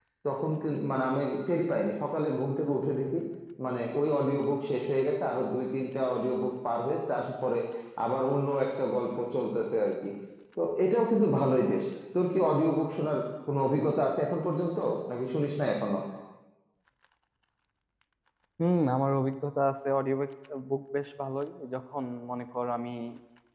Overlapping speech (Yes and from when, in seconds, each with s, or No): No